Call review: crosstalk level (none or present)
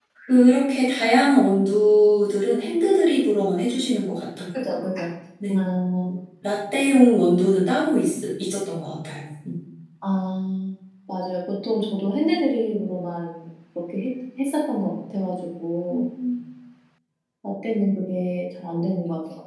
none